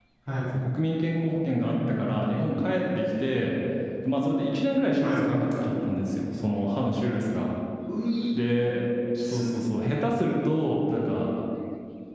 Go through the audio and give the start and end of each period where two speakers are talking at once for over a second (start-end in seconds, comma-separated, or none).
none